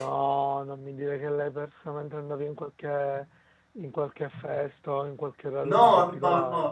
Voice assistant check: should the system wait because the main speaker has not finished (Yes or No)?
No